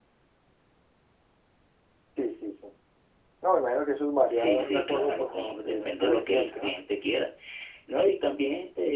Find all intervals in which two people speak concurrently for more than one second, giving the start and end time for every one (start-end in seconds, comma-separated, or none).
4.3-6.8